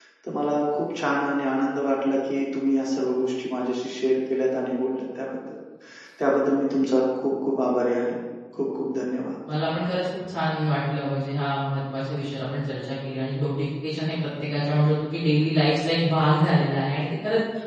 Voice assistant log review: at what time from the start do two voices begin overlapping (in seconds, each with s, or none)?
none